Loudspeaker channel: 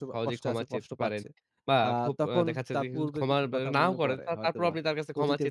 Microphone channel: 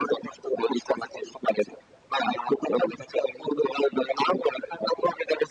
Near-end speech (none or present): none